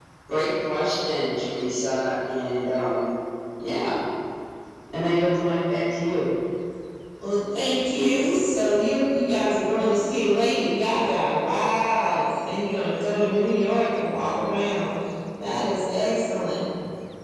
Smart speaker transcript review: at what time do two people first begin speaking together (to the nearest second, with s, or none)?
none